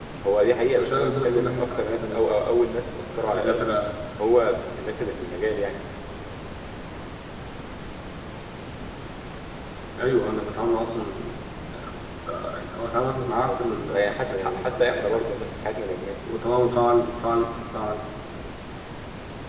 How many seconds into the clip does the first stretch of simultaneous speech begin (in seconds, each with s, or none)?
0.8 s